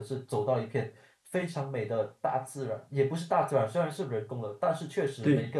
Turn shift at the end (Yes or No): No